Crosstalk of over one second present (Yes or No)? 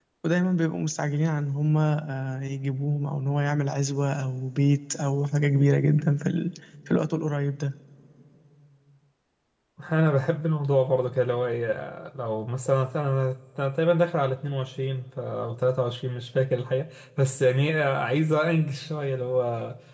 No